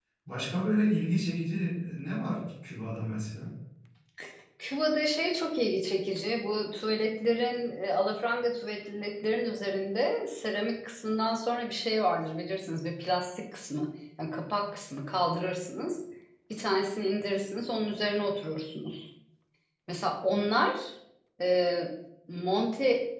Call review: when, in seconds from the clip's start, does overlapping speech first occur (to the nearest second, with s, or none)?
none